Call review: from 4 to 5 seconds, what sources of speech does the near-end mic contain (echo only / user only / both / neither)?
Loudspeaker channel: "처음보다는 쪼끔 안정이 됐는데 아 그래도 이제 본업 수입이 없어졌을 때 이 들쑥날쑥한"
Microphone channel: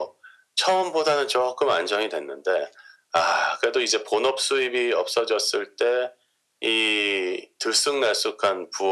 echo only